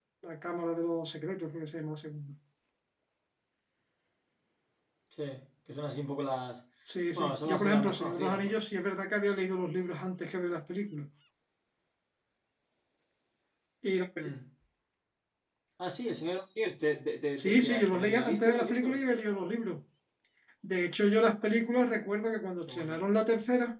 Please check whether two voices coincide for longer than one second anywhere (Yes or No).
Yes